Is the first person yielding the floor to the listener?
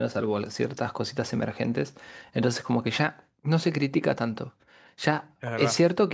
No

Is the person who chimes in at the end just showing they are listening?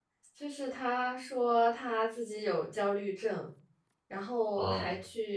Yes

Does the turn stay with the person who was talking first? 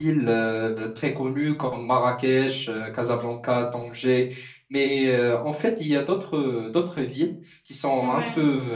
Yes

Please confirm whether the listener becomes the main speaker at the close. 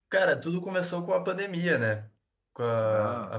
No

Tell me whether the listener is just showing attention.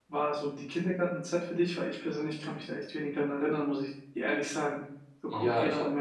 No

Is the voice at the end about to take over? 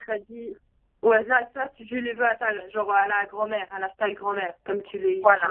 Yes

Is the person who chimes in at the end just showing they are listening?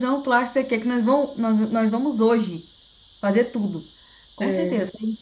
Yes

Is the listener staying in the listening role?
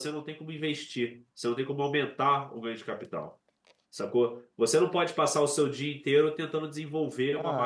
No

